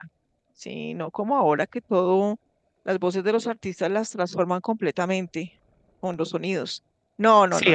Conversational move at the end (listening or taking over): taking over